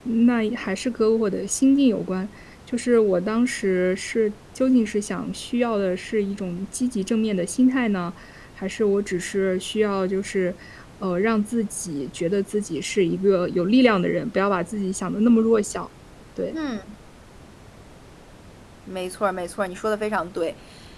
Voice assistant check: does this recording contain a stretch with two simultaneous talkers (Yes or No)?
No